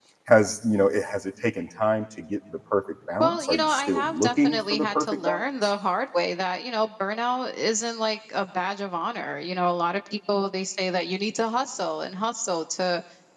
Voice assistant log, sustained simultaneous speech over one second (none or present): present